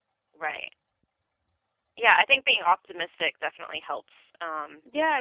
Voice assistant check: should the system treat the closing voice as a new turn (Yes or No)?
Yes